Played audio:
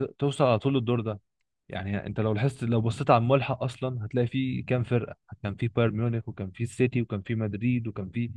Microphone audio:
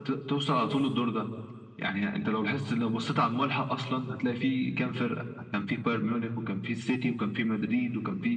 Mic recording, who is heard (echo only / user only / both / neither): both